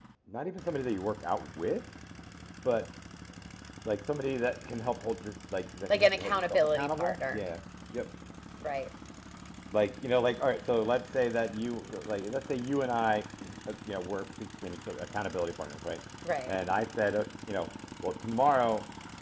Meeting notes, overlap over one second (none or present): present